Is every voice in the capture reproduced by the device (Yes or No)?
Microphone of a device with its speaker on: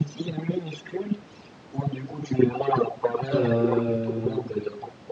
No